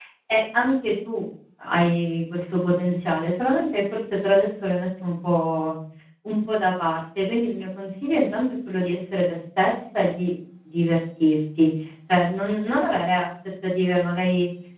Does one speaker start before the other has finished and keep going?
No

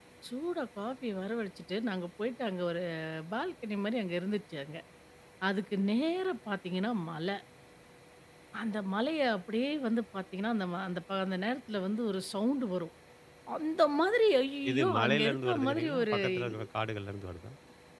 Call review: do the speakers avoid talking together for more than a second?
No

